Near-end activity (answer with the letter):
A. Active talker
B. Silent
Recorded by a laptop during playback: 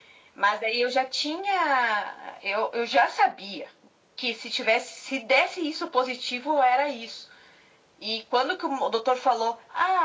B